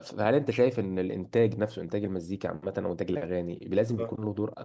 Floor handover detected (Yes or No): No